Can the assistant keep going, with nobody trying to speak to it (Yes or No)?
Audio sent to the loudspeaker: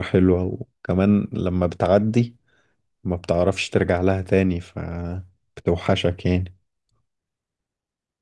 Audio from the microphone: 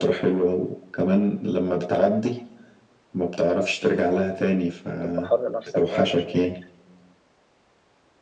No